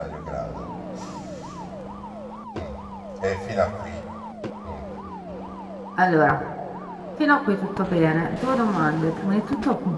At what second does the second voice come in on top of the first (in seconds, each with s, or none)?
none